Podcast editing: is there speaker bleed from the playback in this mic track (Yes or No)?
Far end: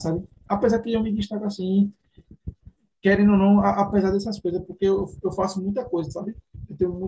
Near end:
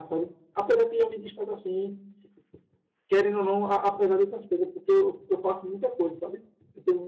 Yes